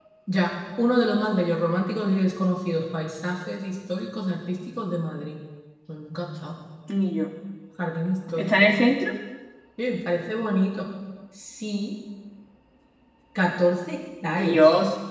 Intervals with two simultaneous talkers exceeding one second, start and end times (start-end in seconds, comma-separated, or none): none